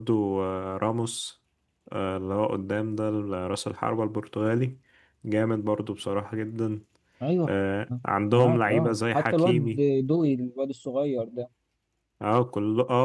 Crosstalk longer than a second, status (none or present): present